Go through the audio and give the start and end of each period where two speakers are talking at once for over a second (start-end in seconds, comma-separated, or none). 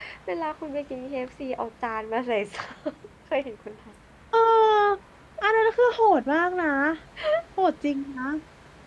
none